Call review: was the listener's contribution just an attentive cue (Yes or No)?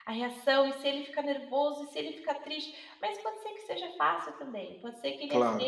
Yes